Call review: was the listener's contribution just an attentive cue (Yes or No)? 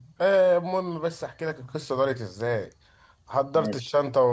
Yes